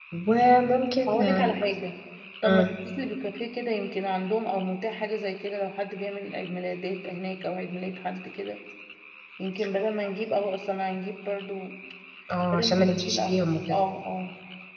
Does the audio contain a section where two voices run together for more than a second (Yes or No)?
Yes